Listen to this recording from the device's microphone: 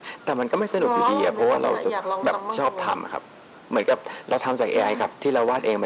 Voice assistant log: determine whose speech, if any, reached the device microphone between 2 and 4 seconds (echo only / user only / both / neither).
echo only